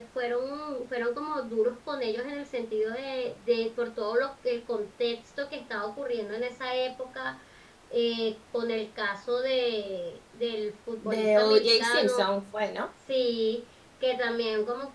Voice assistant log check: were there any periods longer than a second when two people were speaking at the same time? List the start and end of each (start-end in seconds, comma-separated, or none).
11.0-12.3